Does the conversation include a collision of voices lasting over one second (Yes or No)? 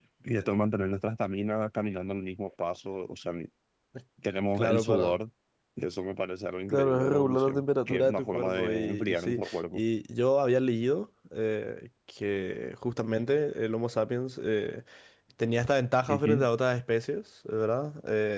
Yes